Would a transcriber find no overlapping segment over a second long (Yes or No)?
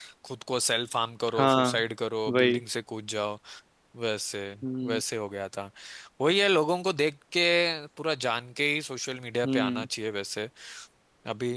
Yes